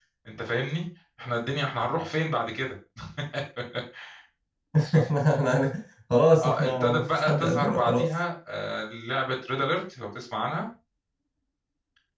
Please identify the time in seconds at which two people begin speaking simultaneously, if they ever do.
6.4 s

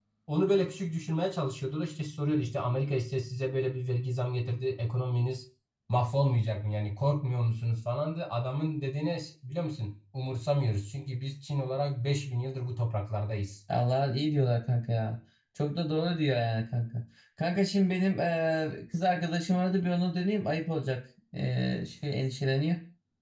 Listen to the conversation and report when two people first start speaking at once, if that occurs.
none

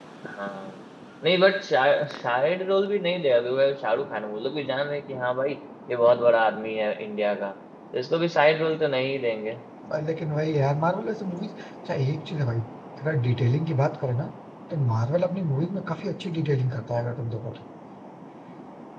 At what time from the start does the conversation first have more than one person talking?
none

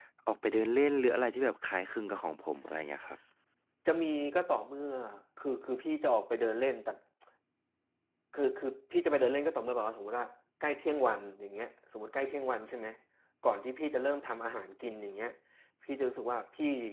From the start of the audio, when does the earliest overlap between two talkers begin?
none

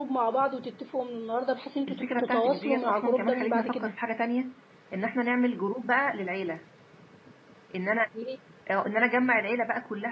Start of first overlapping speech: 1.9 s

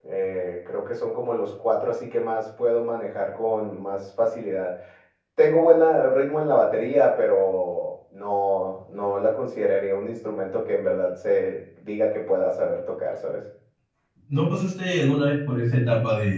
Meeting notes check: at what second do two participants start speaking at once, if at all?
none

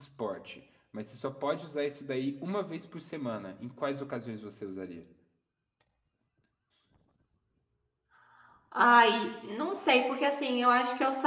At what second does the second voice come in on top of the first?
none

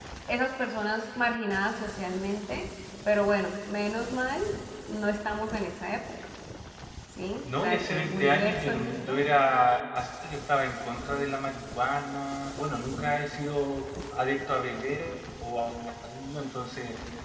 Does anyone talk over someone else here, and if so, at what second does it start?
7.4 s

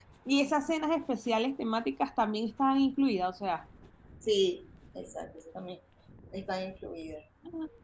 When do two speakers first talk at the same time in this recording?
none

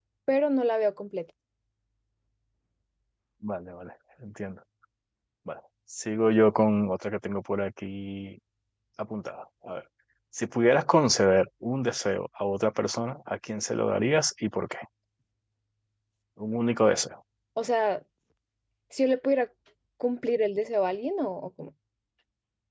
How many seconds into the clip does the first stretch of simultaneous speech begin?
none

